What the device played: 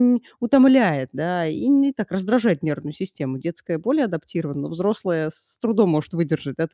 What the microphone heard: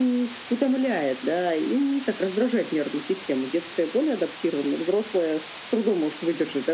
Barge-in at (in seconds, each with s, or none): none